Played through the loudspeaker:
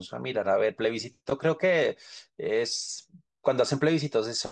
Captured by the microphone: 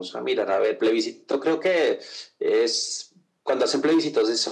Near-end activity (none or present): none